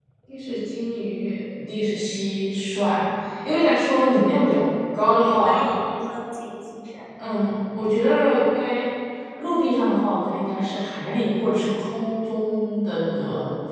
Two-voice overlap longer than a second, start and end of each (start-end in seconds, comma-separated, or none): none